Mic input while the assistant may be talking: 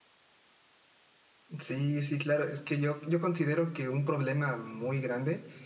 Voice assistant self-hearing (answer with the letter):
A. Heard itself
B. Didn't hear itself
B